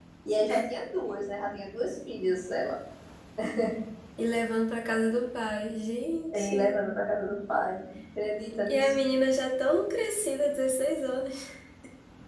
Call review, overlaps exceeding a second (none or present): none